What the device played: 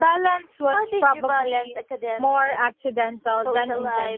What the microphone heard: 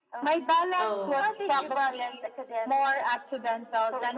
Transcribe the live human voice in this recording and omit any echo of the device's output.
Oh, I see.

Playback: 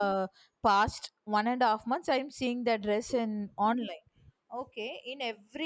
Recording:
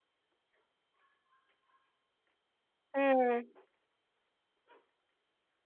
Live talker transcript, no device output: mm.

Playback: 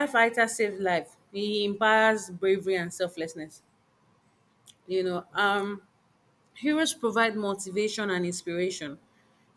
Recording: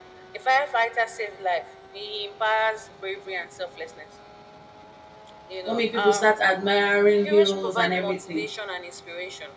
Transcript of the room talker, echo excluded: What made people start admiring heroes and everything?

